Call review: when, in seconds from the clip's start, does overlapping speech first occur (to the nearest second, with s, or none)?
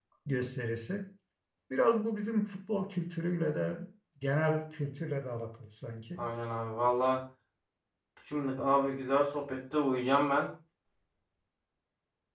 none